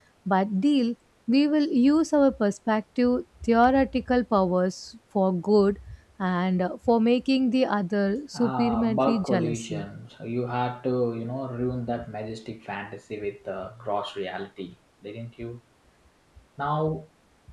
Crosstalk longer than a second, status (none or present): present